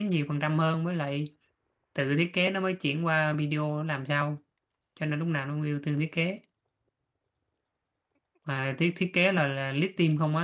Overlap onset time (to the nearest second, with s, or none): none